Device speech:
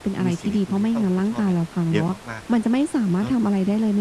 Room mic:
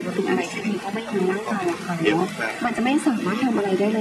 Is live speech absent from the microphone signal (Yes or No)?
Yes